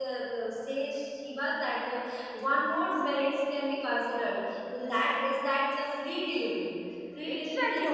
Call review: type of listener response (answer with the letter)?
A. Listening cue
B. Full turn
B